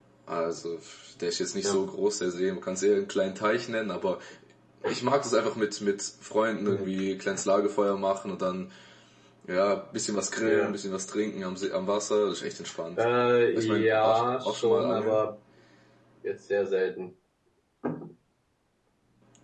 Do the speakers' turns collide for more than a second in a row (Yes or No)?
Yes